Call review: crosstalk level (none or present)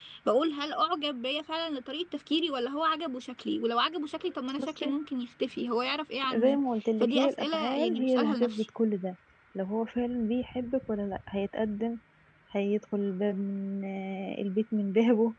present